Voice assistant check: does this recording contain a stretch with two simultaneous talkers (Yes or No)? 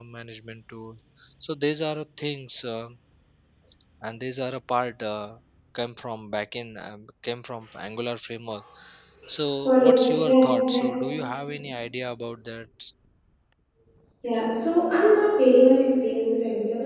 Yes